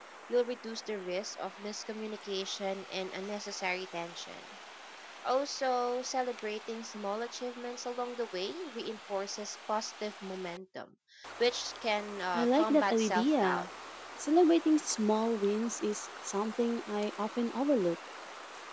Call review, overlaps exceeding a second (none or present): present